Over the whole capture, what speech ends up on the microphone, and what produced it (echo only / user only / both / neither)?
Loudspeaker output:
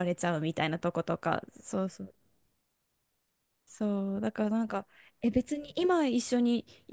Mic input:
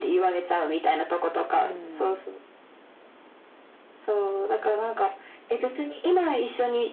both